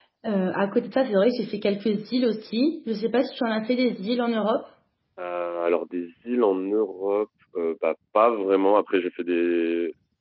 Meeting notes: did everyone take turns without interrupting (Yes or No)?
Yes